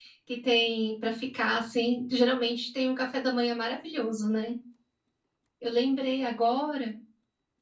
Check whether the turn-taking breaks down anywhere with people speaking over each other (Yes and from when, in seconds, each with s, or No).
No